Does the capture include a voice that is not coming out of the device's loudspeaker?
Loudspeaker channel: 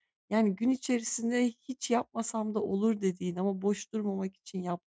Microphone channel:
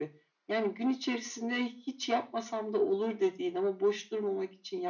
No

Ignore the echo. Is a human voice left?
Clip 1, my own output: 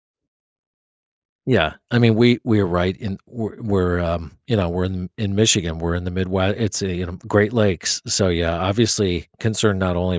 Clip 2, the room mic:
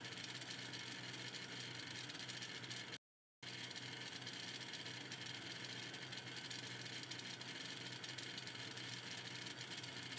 No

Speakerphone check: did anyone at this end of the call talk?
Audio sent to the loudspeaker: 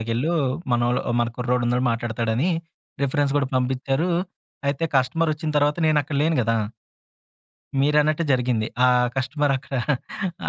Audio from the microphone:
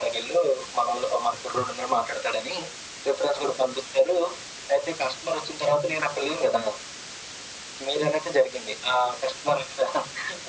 No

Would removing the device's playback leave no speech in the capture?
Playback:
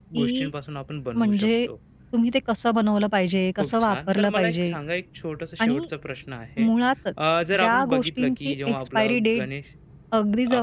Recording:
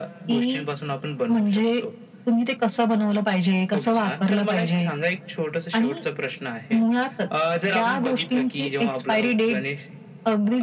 Yes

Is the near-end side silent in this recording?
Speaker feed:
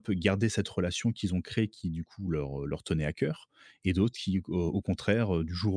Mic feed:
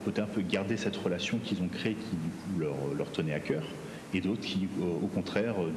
Yes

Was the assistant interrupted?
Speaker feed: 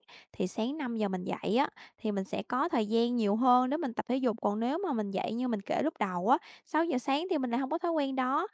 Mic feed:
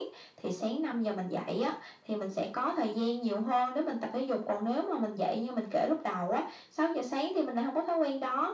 No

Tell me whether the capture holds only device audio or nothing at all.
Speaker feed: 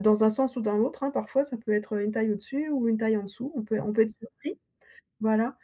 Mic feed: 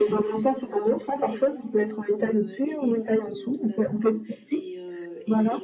No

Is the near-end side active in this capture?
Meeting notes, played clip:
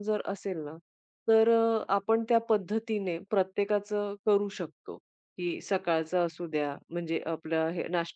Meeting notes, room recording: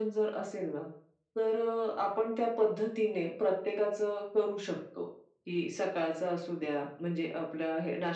No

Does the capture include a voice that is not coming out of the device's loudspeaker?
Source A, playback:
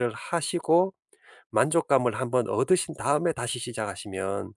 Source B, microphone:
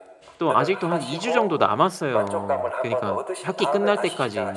Yes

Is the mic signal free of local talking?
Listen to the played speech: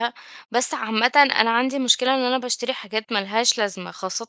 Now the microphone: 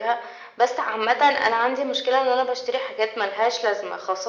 Yes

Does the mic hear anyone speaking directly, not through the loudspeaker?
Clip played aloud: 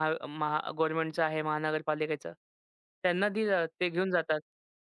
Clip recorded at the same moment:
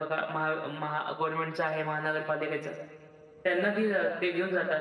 No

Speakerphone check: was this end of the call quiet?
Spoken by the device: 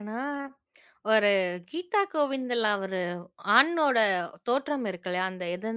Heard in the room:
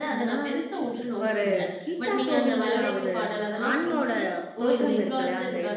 No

